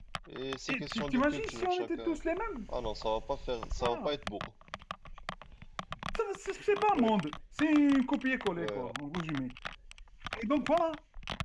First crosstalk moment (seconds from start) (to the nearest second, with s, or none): 1 s